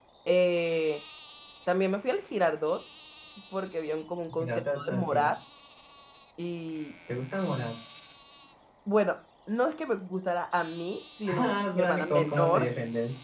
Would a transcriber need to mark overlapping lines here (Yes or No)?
Yes